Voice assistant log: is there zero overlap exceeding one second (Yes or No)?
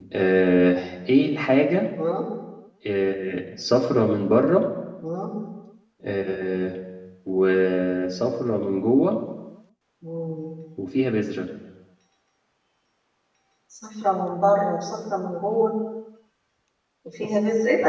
Yes